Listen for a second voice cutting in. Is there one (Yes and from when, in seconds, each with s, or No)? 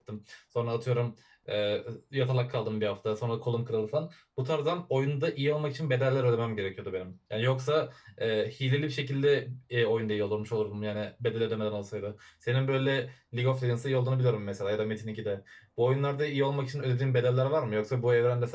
No